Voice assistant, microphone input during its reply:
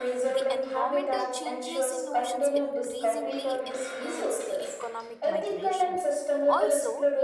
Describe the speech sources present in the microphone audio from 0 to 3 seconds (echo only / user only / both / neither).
both